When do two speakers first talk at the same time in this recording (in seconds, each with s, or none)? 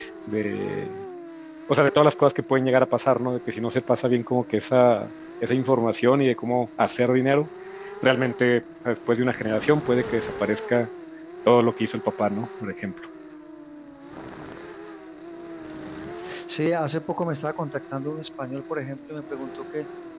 none